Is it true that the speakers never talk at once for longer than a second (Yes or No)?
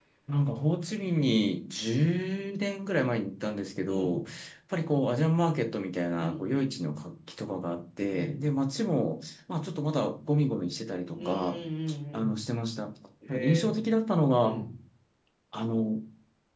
Yes